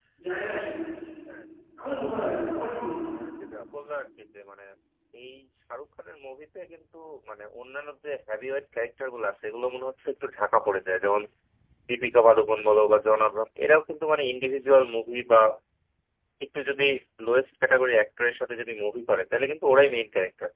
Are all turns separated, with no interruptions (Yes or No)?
Yes